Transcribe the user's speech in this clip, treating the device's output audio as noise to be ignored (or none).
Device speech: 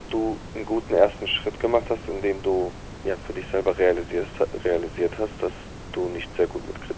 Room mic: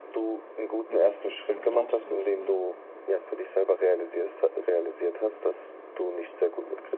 ne, diese Kritik dann erlaubst und, äh,